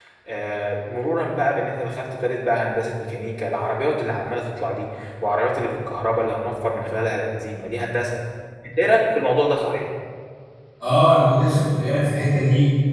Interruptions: none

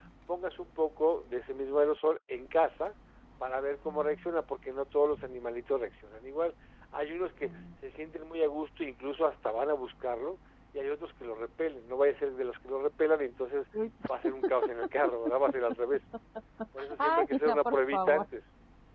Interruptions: present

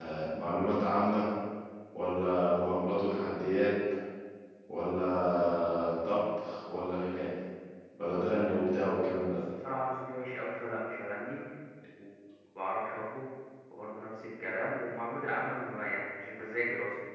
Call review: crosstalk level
none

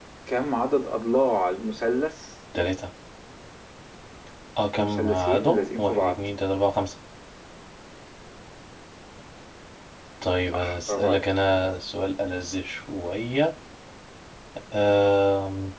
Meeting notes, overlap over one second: present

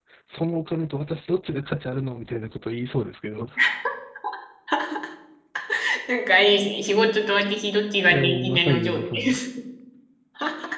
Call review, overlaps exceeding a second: present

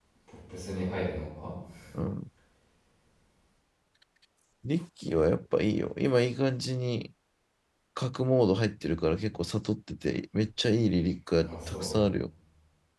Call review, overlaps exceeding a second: none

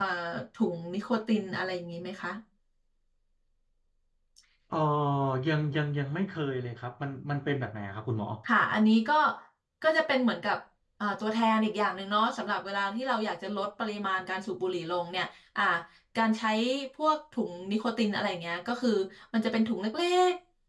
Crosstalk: none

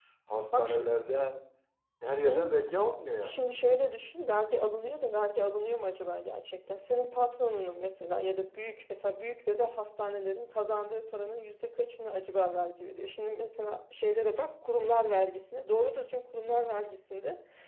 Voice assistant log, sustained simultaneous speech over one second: none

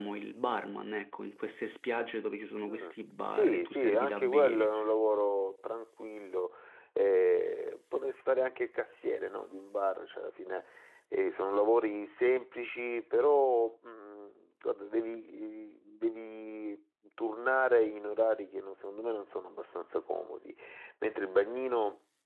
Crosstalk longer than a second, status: present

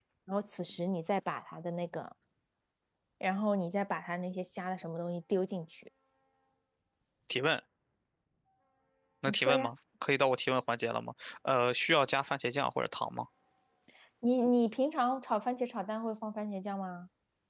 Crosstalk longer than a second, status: none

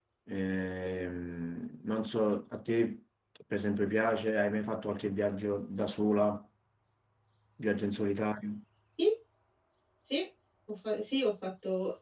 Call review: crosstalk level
none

